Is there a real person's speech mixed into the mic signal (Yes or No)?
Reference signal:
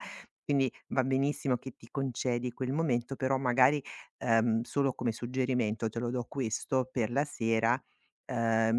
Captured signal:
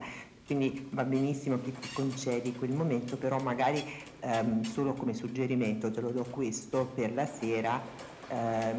No